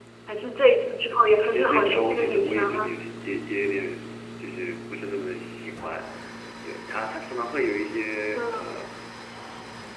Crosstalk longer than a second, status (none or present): present